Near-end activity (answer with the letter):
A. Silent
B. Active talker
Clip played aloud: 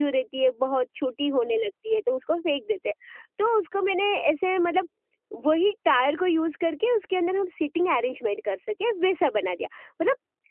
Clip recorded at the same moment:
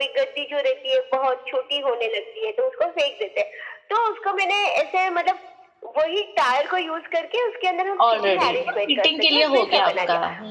B